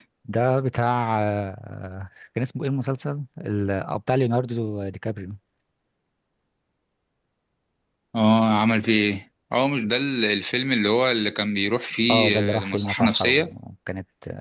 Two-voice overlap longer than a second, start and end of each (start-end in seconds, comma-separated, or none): 12.1-13.5